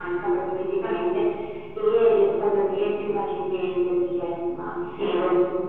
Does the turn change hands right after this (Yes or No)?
No